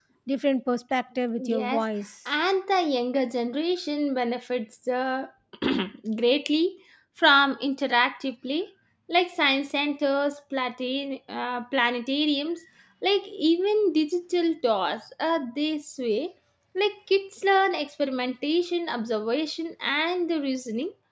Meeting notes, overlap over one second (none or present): none